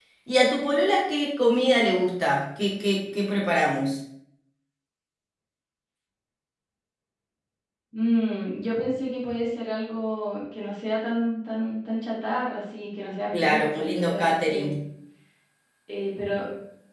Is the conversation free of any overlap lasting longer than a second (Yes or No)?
No